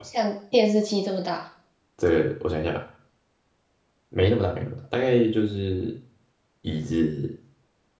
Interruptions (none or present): none